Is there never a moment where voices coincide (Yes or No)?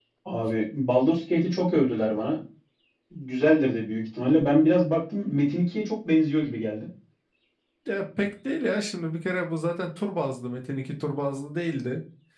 Yes